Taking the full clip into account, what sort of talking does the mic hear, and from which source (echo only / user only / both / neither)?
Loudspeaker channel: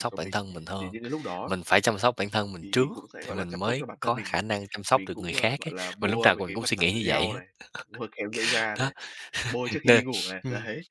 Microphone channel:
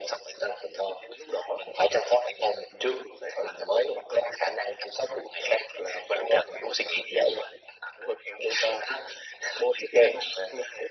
echo only